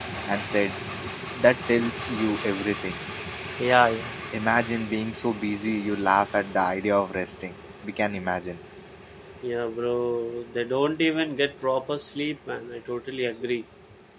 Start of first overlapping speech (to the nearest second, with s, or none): none